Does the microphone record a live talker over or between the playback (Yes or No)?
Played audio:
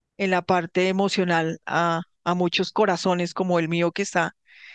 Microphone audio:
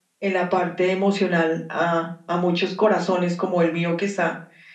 No